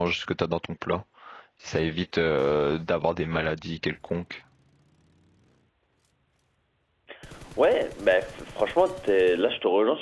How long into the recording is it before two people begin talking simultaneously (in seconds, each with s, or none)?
none